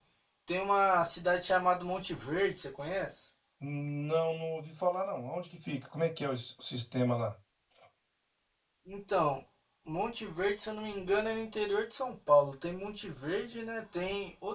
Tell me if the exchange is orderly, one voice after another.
Yes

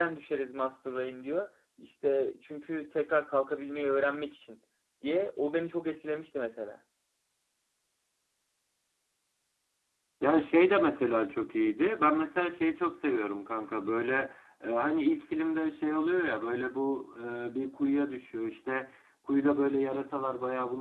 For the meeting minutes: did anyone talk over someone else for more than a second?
No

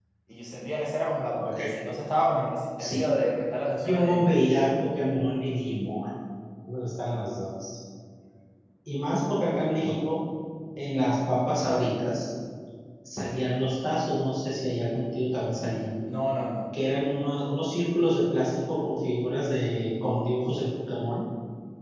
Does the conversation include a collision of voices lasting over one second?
No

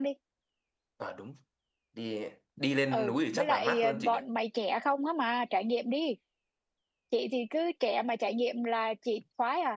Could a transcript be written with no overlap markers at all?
No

